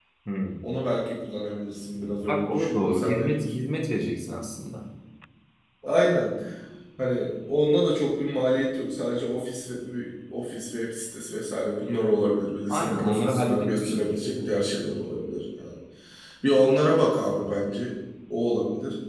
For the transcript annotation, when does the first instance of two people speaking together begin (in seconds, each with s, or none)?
2.3 s